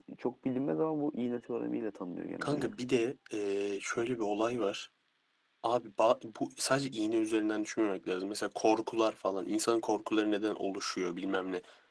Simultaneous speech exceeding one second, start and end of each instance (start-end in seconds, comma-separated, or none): none